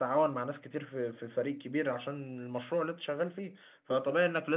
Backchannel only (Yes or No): Yes